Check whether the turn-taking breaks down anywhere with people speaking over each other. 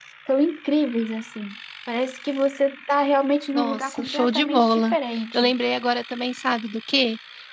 Yes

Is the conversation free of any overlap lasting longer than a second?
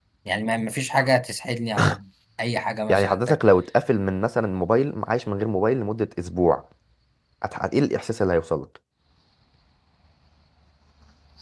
Yes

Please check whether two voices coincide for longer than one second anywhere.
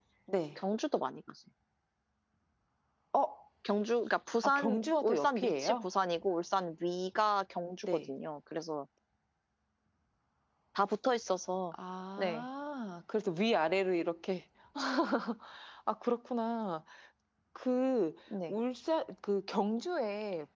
Yes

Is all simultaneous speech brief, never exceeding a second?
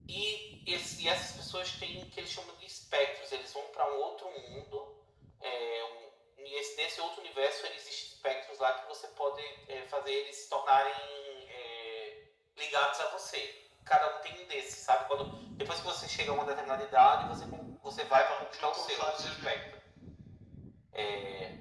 No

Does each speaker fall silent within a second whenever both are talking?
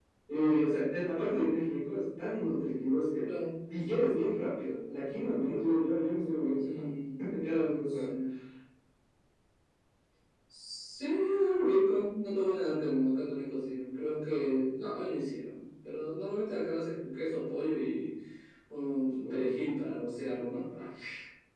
Yes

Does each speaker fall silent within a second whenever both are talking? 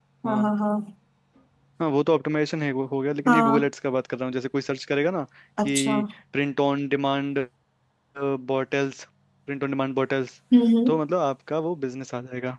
Yes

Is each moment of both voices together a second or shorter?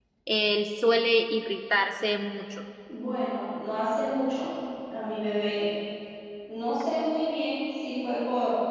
Yes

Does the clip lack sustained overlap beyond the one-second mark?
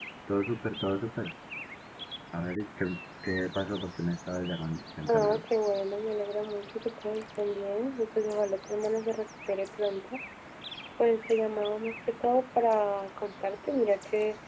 Yes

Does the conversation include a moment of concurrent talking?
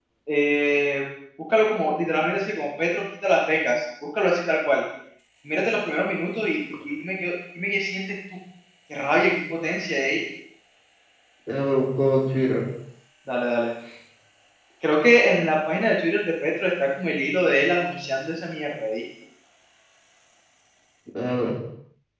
No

